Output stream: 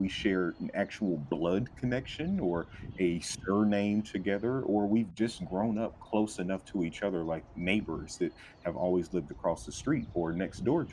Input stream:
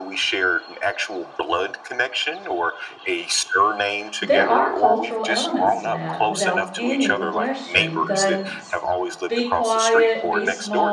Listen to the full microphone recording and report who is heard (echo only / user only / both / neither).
both